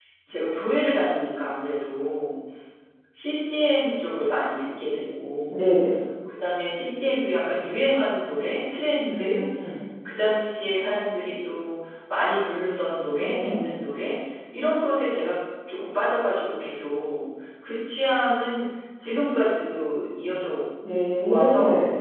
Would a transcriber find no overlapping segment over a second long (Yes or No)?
Yes